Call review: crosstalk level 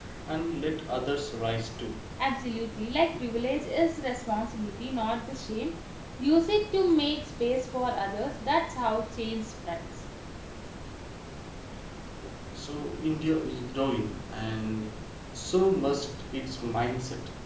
none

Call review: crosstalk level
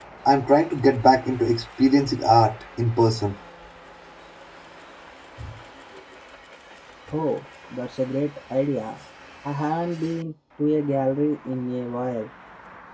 none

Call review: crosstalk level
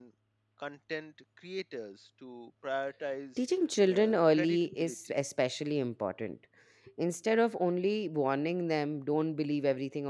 present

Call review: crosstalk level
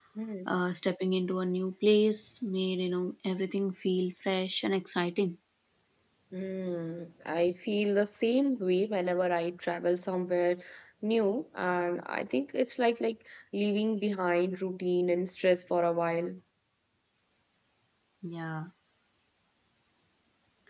none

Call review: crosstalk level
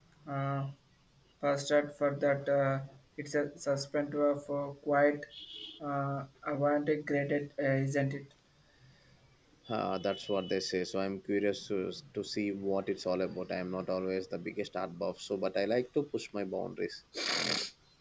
none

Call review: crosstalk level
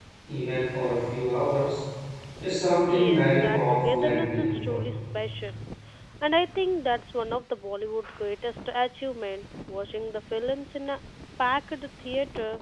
present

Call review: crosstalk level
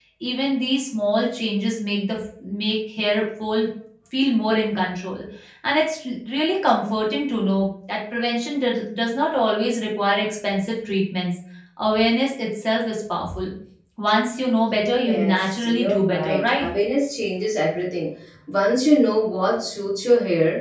present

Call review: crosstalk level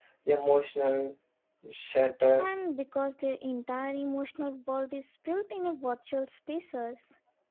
none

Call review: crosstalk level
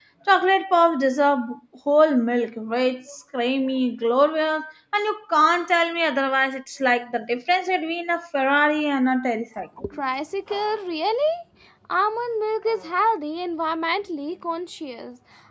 none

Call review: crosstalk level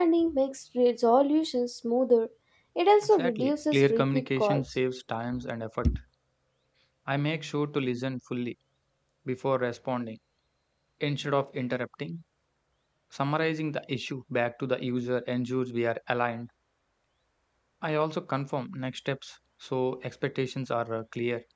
present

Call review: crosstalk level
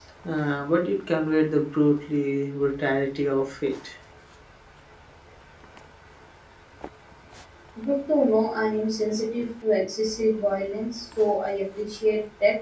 none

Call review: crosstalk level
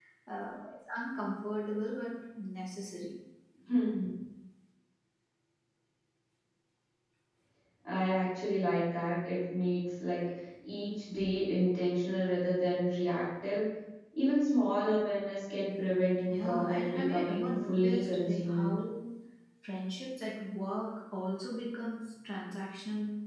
present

